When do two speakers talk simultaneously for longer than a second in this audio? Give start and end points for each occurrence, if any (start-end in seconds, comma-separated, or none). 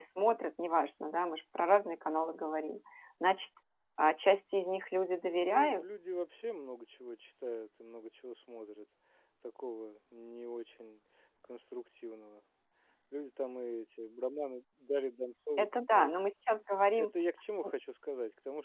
none